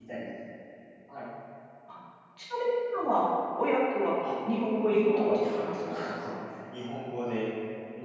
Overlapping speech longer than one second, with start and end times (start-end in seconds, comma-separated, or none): 4.9-6.3